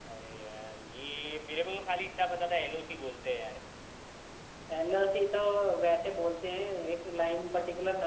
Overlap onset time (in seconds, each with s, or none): none